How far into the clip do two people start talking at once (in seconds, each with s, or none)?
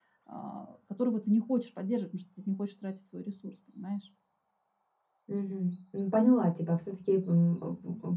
none